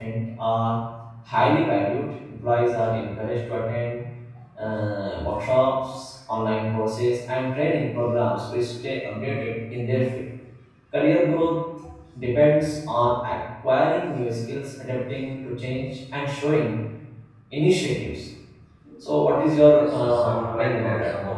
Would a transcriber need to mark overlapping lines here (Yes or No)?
Yes